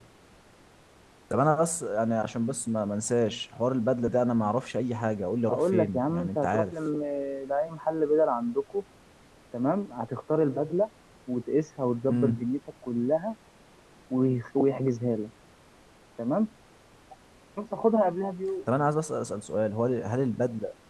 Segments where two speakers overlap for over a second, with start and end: 5.5-6.7

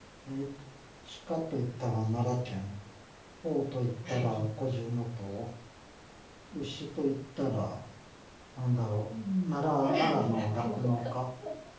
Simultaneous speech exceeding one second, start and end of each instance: 9.8-11.1

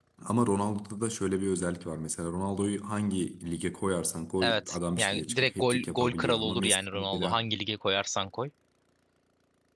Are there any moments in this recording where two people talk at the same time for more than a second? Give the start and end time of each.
4.4-7.4

